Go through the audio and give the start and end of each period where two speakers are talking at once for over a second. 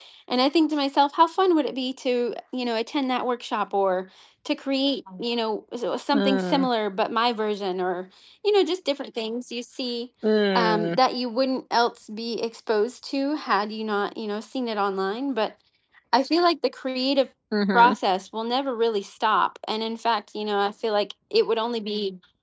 none

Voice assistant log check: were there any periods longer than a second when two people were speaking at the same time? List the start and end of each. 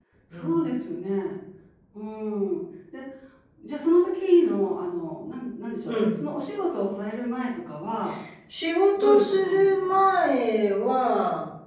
9.0-10.3

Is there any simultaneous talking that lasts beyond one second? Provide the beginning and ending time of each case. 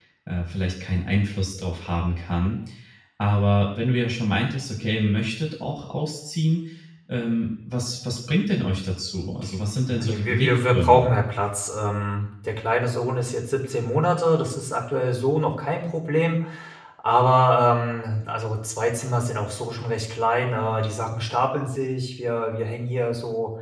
9.9-11.1

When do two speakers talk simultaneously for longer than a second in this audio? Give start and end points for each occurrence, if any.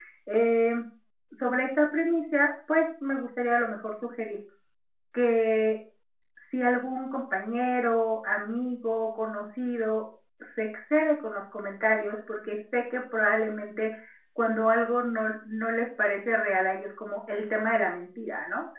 none

